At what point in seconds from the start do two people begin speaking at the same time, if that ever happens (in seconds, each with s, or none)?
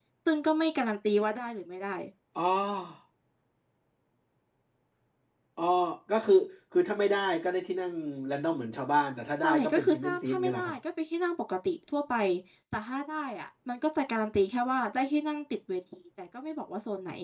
9.4 s